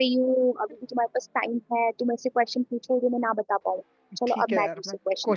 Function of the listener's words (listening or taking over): taking over